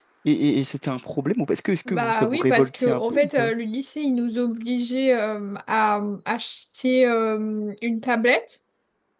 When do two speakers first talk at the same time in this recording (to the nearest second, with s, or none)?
2 s